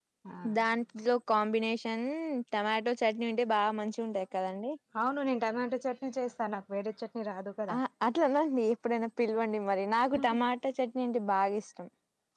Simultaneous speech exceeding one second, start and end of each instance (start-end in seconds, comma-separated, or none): none